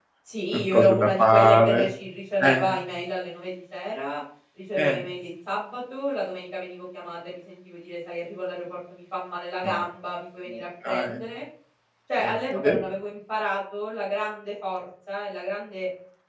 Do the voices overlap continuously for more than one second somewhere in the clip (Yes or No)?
Yes